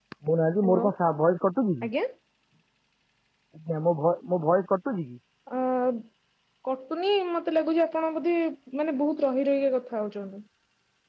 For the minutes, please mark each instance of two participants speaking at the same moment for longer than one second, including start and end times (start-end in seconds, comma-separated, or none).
none